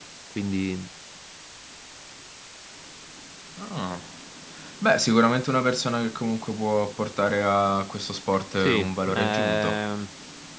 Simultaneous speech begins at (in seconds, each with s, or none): 8.6 s